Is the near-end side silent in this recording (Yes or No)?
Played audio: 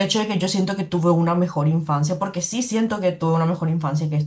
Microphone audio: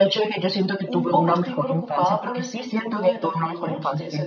No